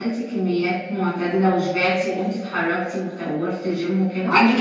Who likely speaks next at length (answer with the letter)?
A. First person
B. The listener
B